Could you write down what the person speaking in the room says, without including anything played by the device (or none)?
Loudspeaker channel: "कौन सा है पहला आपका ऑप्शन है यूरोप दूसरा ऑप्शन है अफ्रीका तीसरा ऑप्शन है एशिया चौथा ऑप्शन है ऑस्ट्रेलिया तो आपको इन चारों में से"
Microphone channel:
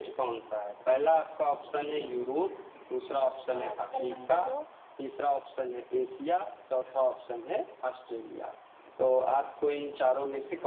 ल- अ, विकल्प नंबर दो